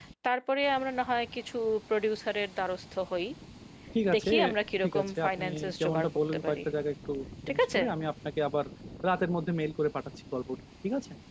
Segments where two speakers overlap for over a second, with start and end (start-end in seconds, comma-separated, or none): 4.8-6.6